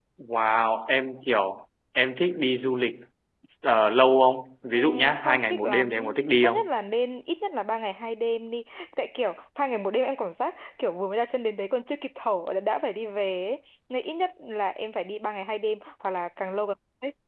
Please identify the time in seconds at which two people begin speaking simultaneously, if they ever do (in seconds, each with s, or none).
4.7 s